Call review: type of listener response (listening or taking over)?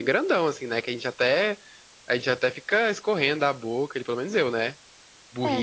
listening